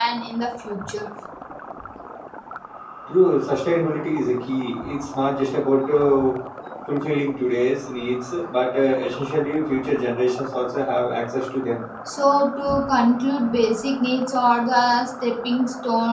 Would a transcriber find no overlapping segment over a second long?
Yes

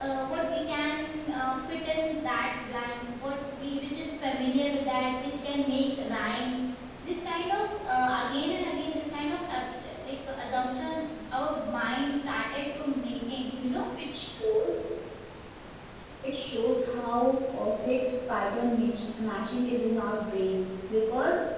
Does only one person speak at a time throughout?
Yes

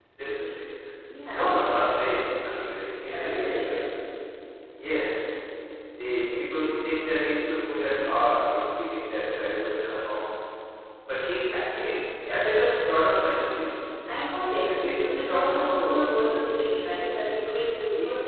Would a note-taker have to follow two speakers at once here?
Yes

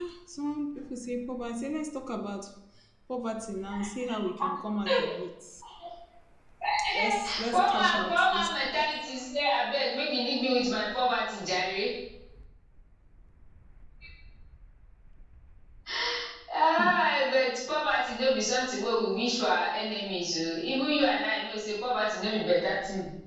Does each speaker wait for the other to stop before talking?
No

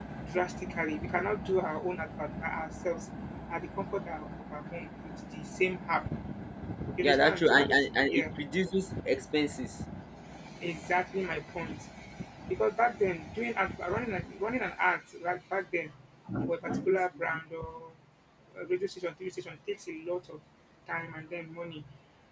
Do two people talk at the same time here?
Yes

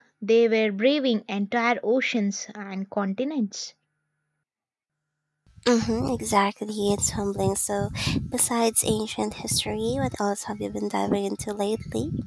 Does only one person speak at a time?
Yes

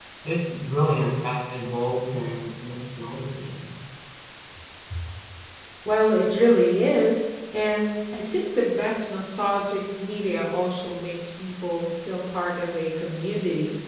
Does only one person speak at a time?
Yes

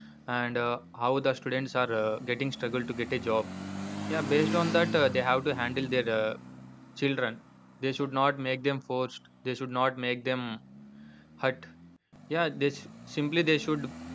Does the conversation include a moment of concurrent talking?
No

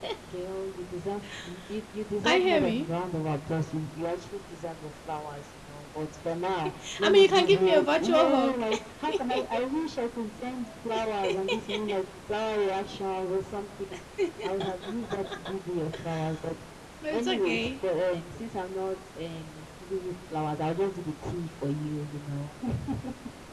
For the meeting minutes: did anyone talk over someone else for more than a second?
Yes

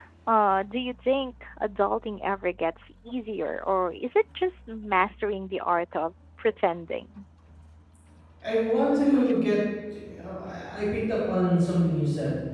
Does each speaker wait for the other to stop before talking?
Yes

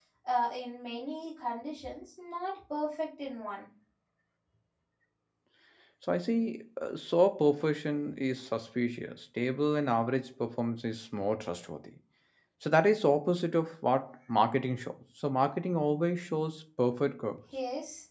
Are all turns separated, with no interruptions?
Yes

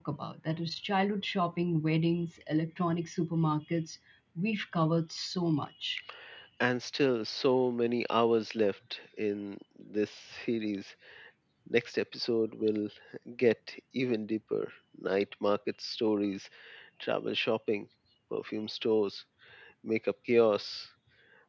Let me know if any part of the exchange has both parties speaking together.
No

